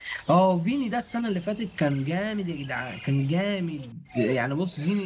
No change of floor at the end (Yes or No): Yes